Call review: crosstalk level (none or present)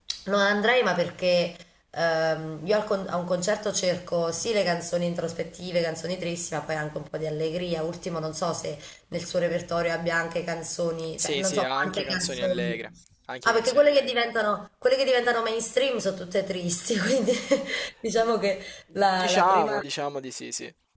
present